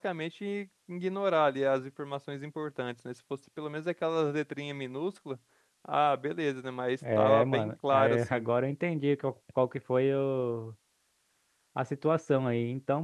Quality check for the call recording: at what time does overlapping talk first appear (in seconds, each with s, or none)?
7.0 s